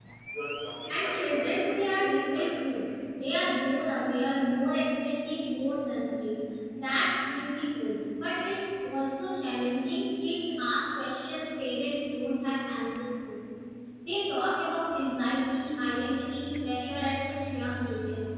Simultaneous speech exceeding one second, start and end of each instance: 0.9-2.9

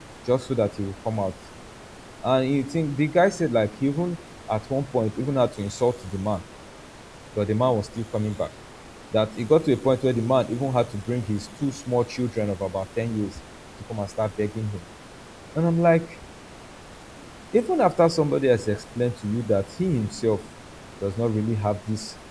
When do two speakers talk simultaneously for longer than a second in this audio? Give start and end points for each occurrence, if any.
none

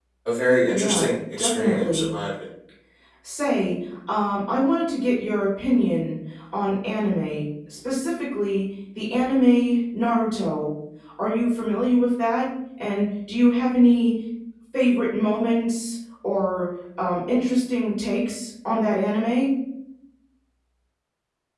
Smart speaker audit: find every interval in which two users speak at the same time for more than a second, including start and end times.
0.7-2.0

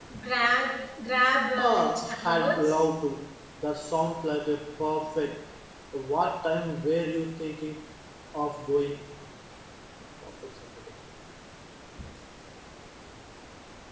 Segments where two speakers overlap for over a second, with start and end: 1.6-2.9

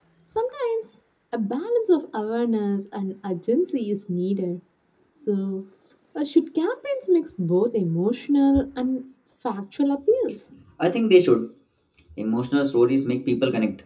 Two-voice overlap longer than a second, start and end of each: none

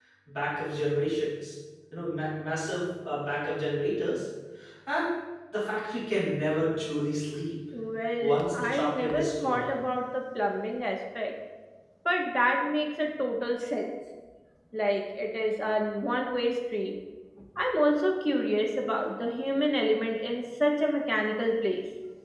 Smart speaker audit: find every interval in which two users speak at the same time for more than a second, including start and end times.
8.2-9.7

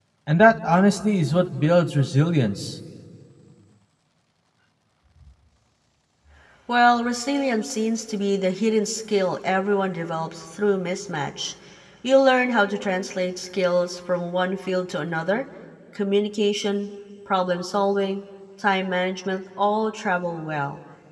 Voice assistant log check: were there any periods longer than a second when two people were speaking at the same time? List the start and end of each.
none

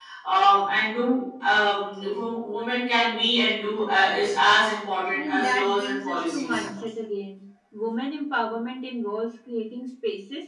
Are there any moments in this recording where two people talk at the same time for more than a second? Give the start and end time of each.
5.1-6.6

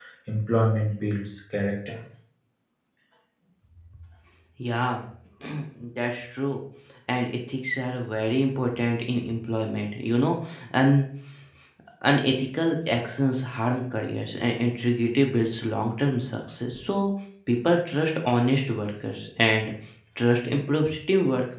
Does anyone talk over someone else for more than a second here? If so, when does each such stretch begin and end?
none

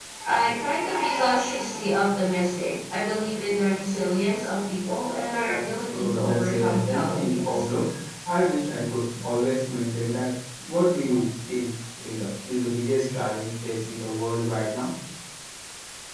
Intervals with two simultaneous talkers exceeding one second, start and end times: 5.9-7.6

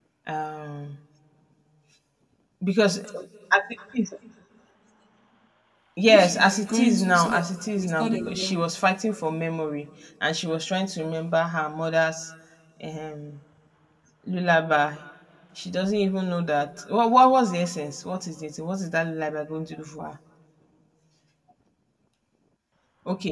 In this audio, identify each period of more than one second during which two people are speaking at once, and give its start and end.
6.1-8.6

